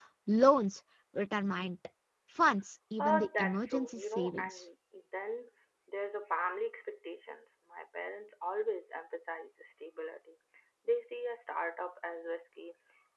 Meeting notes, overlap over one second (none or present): present